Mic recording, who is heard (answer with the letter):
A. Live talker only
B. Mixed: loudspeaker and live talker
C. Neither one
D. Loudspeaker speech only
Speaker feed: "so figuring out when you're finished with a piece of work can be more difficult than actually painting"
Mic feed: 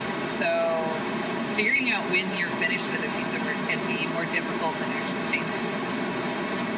D